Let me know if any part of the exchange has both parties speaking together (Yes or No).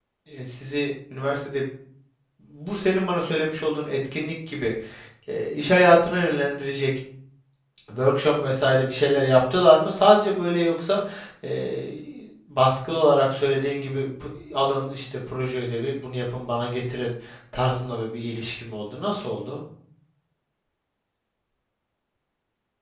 No